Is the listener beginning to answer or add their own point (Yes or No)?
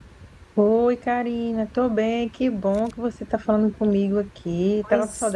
Yes